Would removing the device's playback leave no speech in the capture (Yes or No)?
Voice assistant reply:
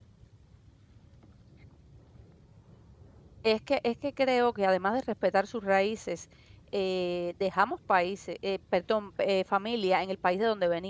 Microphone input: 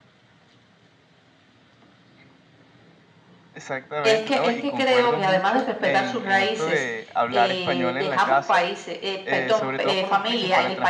No